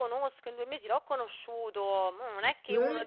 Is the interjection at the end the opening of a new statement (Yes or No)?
No